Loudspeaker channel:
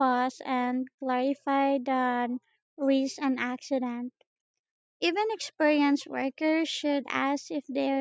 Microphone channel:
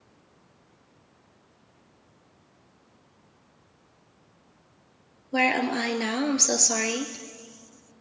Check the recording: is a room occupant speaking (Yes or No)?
Yes